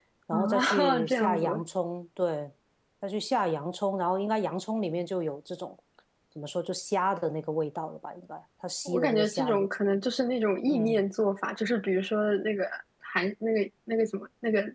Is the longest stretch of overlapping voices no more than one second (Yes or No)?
No